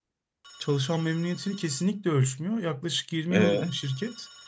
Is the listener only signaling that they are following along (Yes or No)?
Yes